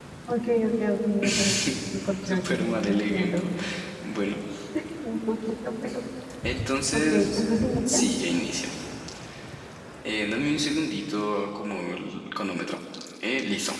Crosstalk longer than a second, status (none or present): present